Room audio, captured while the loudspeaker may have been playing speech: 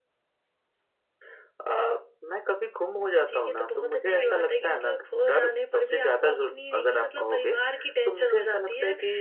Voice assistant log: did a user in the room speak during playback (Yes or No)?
Yes